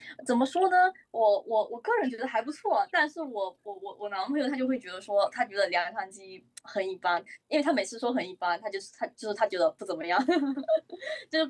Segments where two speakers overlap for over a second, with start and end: none

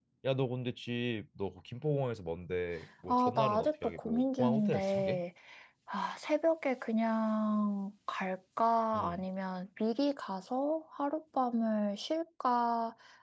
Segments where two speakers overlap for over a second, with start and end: 3.1-5.2

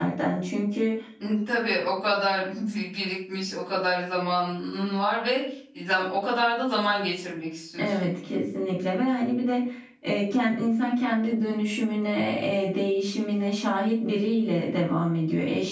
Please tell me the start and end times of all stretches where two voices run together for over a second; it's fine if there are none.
none

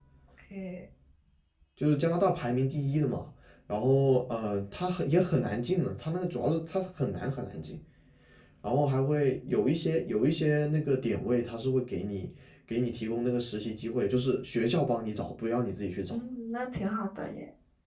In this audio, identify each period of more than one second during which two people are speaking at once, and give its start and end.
none

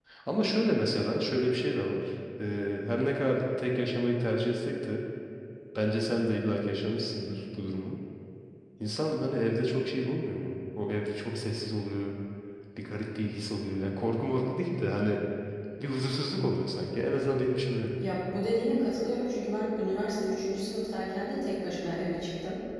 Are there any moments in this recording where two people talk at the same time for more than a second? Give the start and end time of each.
none

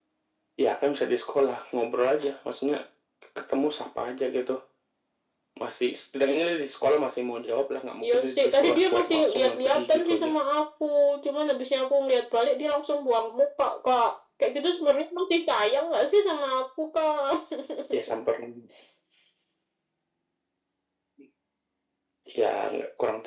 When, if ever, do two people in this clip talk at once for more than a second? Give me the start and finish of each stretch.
8.0-10.3

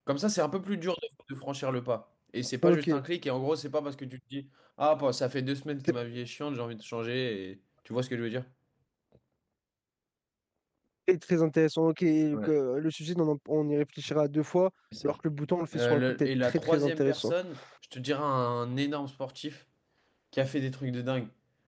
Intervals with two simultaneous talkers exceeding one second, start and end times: 15.7-17.3

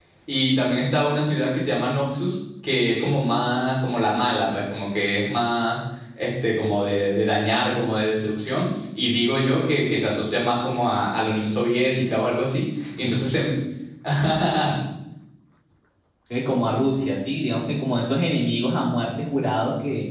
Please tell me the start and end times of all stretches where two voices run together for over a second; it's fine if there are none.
none

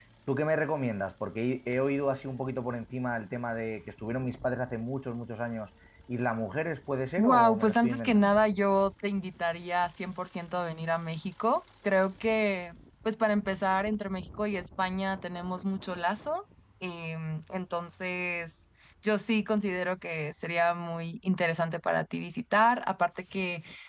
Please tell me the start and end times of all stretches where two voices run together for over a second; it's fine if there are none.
7.2-8.4

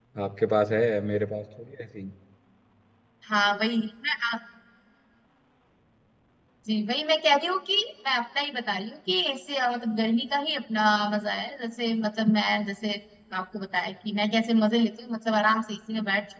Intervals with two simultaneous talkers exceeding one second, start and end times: none

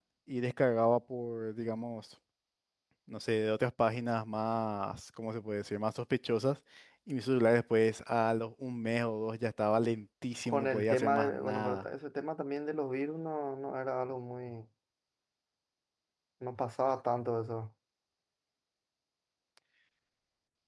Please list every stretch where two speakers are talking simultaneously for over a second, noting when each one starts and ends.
10.5-11.8

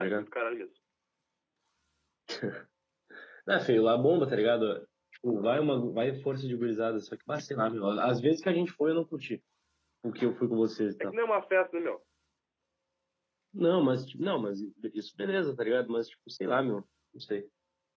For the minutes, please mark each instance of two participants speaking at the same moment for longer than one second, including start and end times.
none

